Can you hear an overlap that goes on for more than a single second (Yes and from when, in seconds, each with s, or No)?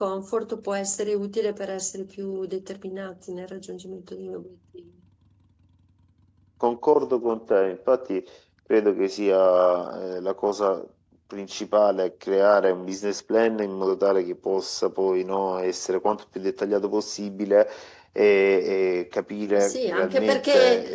Yes, from 19.5 s